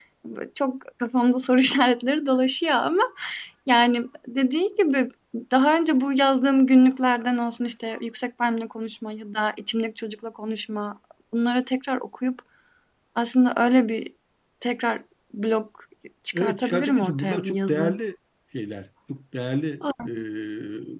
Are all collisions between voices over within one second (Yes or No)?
No